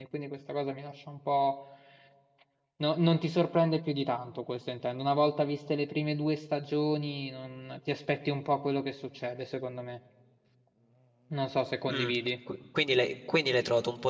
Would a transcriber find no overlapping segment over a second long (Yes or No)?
Yes